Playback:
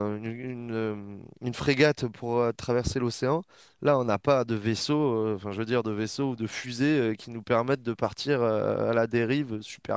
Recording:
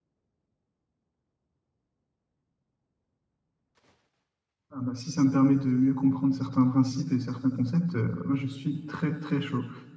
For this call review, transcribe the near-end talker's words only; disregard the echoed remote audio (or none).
ah bah, si ça me permet de mieux comprendre certains principes et certains concepts, euh, moi je suis très très chaud.